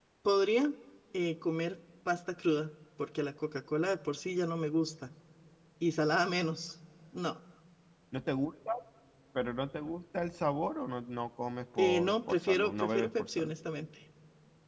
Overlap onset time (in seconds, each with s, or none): 11.8 s